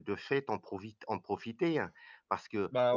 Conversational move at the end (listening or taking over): listening